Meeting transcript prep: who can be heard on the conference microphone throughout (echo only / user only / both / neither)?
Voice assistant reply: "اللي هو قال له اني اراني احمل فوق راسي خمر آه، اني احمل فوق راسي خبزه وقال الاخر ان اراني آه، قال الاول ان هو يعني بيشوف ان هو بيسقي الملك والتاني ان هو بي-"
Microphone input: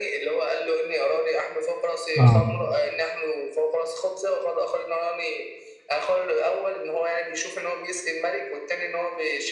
both